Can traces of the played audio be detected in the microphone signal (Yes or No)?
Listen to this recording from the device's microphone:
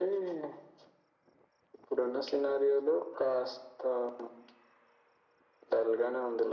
Yes